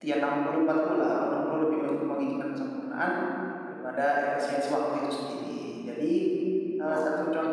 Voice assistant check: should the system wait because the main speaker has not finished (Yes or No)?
Yes